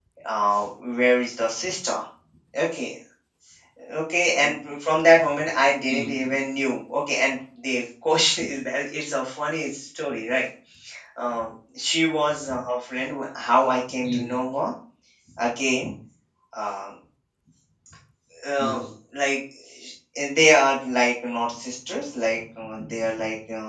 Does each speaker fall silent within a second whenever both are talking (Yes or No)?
Yes